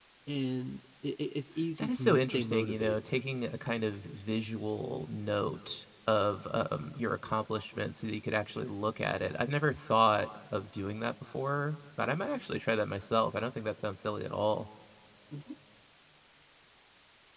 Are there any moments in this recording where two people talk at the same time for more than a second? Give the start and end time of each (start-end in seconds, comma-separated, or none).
1.8-3.0